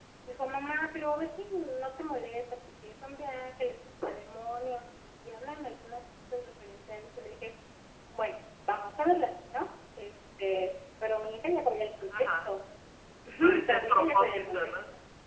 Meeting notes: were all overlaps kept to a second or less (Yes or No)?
No